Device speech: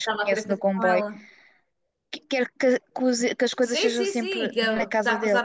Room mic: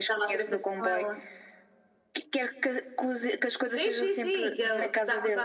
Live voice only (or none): none